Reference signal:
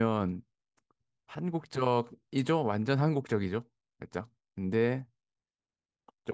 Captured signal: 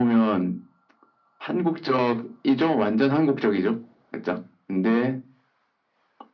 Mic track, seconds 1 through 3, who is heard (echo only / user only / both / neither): echo only